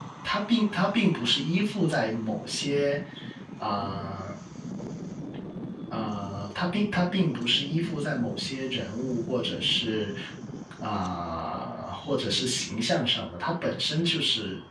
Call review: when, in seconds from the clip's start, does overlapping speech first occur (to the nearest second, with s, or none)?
none